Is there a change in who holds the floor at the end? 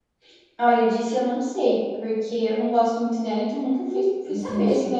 Yes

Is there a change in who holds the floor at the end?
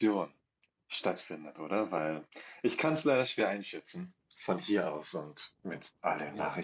Yes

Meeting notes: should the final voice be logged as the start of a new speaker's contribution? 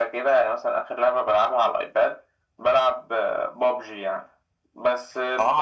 No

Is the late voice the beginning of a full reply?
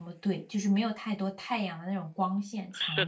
Yes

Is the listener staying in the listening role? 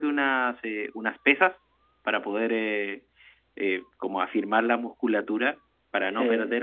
Yes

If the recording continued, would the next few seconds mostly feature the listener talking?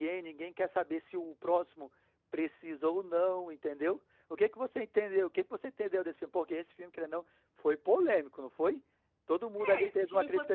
Yes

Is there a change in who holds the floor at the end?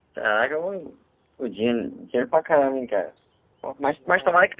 No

